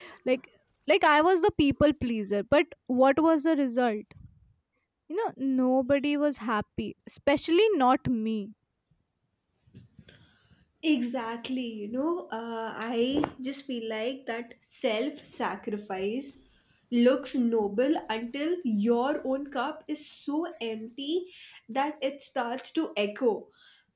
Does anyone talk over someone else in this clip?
No

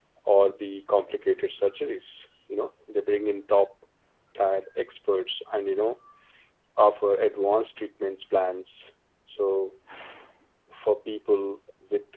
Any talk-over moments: No

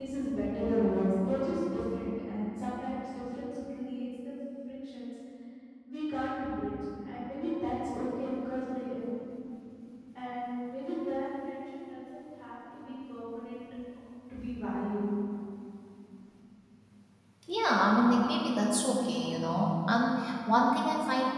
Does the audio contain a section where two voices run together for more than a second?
No

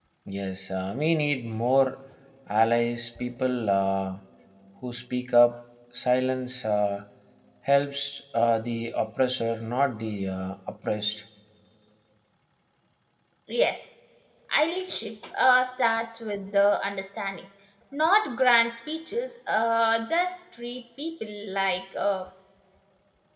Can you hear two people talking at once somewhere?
No

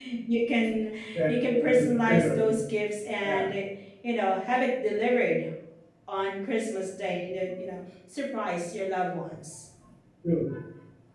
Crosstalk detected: Yes, from 1.3 s

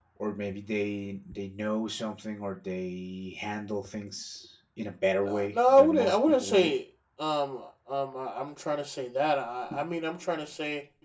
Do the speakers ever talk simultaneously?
Yes, from 5.3 s

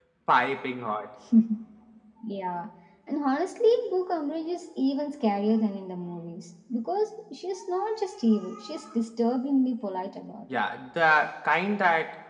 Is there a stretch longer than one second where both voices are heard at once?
No

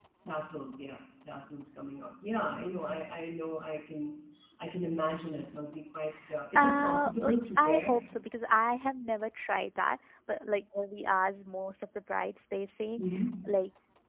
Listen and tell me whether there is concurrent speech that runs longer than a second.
Yes, from 6.5 s

